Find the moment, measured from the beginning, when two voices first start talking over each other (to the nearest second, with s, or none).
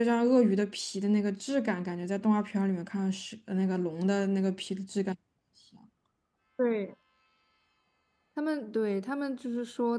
none